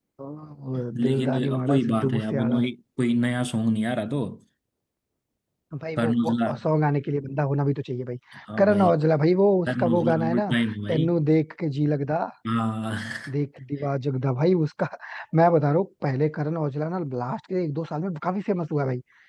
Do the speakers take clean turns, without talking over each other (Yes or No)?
No